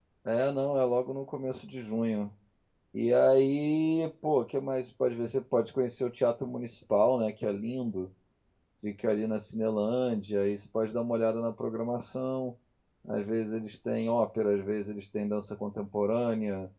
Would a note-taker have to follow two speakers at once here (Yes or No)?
No